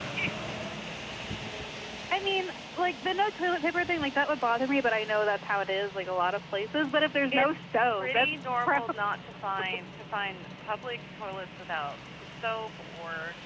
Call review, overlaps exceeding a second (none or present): present